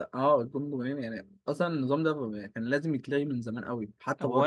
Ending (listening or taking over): taking over